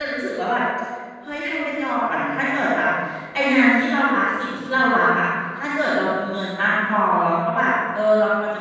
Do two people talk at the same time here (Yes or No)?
No